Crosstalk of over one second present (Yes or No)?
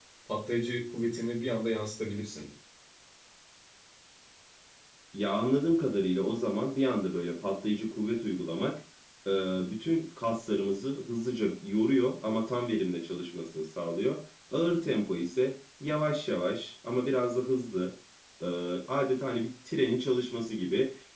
No